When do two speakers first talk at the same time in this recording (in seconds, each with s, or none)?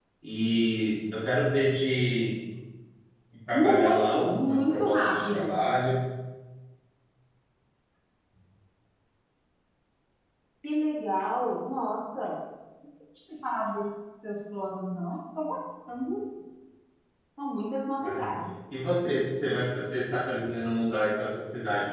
3.5 s